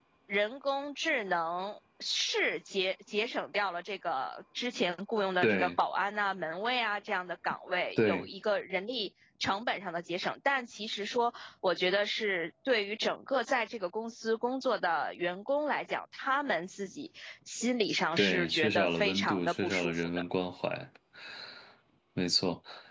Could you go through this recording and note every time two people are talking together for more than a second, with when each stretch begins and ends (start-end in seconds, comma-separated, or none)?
18.2-20.1